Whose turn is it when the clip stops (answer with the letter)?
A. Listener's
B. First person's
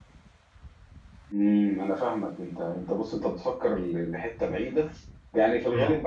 B